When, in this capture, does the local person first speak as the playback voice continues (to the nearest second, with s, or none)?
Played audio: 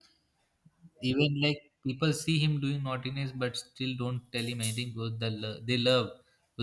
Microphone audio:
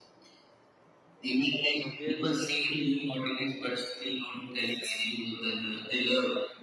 2 s